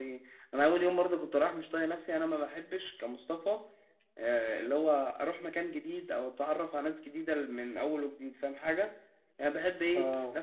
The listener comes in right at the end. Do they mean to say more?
No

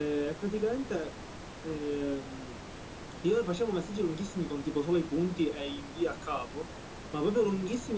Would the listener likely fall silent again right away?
Yes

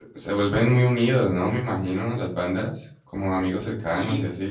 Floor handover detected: Yes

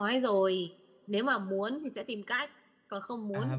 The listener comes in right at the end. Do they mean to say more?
Yes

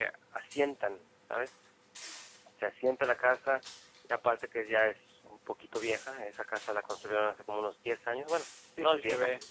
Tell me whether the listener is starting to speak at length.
Yes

